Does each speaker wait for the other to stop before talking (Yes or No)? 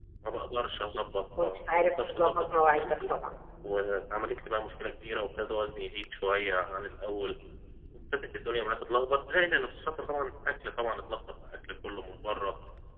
No